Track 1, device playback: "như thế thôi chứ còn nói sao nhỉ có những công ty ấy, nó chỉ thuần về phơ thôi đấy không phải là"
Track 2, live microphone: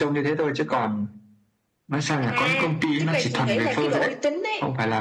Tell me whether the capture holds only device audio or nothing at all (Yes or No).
No